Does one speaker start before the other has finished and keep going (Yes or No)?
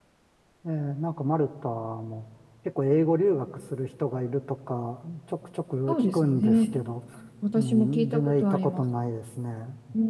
Yes